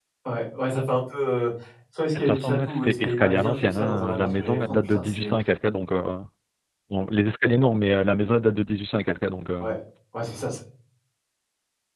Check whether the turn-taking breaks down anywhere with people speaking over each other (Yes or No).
Yes